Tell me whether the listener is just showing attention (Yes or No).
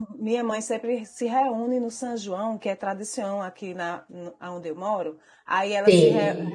Yes